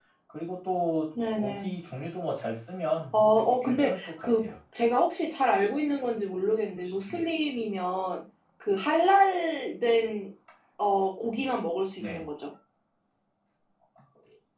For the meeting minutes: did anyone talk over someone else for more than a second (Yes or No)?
Yes